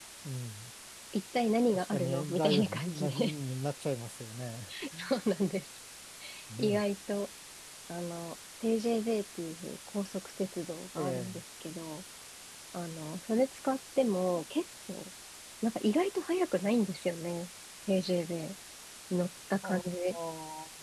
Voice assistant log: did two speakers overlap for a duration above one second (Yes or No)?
Yes